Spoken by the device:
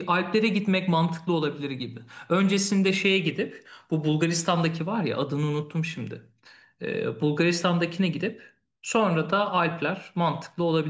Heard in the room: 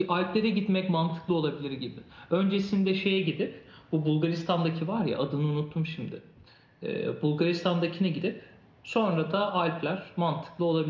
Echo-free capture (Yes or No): No